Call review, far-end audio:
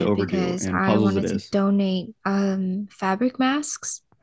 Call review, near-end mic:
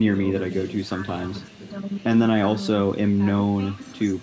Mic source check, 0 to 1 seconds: both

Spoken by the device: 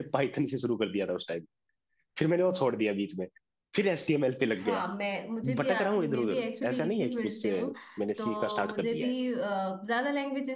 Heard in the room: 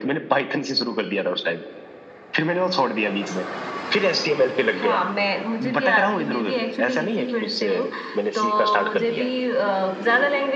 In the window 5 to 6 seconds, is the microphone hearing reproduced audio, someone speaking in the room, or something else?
echo only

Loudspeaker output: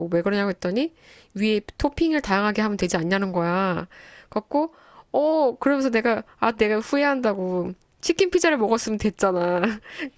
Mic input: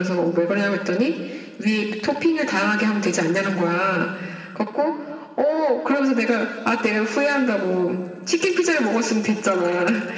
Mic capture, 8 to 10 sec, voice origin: echo only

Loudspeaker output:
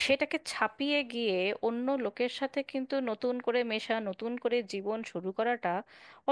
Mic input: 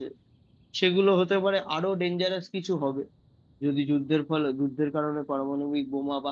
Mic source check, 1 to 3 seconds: user only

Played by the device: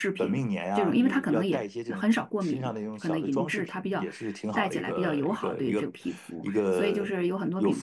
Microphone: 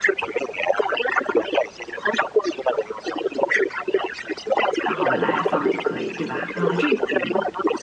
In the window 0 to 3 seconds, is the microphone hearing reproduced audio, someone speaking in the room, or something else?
echo only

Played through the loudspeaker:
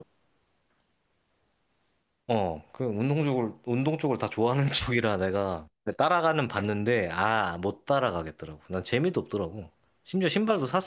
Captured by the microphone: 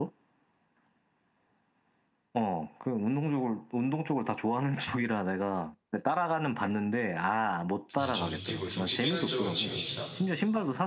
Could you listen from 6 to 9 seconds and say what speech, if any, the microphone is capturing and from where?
both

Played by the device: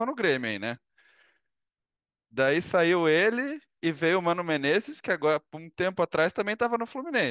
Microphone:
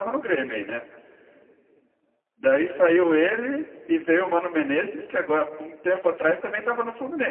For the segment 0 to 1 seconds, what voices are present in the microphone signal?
echo only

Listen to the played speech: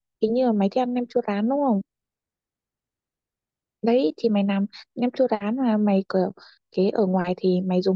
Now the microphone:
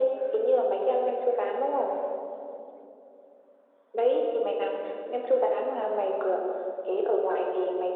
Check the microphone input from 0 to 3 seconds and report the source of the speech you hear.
echo only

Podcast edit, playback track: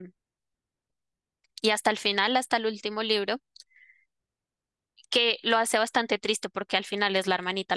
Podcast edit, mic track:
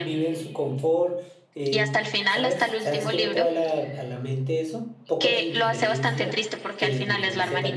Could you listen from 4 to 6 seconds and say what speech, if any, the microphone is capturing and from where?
both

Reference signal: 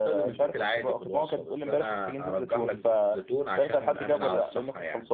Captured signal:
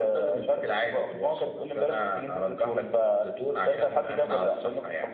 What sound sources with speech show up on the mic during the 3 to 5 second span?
echo only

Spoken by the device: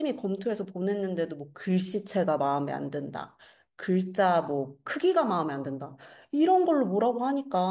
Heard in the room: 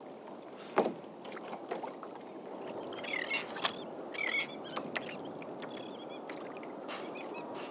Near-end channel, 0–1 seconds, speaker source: neither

